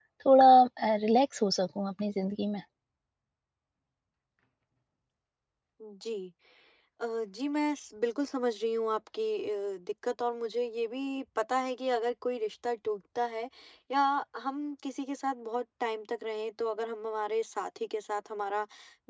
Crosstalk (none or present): none